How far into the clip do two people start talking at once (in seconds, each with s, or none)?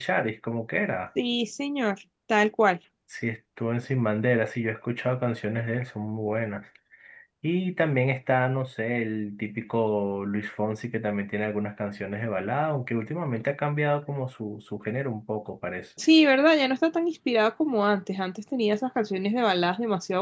none